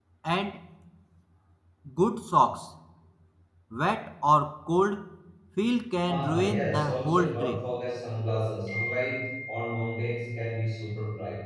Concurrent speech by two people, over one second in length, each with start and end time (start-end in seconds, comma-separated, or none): 6.1-7.6